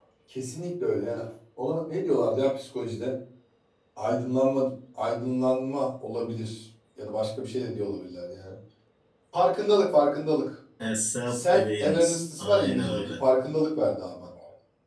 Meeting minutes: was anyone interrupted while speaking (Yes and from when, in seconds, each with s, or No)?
Yes, from 11.3 s